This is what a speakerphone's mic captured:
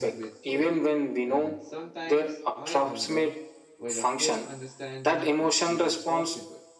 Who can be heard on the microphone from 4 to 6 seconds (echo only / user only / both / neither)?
both